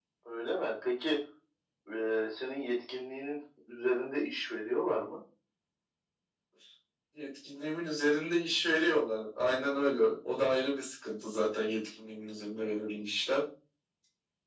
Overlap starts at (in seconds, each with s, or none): none